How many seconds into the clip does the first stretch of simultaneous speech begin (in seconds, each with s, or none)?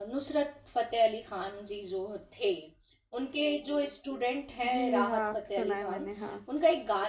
4.6 s